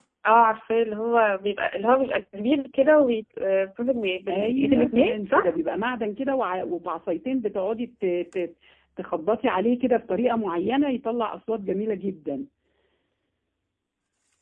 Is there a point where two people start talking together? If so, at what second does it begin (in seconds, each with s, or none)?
4.3 s